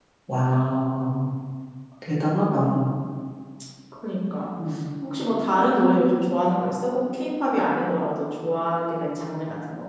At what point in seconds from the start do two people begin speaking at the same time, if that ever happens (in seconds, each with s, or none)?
none